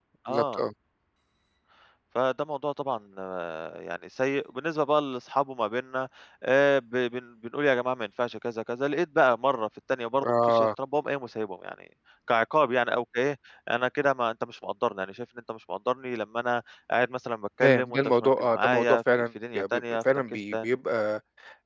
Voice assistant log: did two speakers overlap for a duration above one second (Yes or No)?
Yes